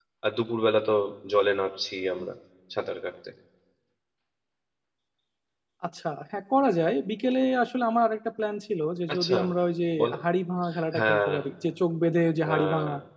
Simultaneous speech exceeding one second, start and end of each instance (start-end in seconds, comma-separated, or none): none